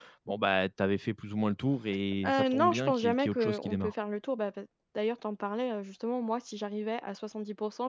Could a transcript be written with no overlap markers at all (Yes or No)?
No